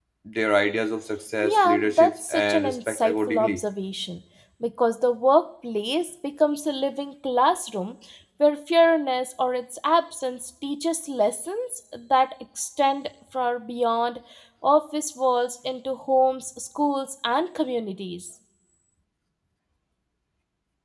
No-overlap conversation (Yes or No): No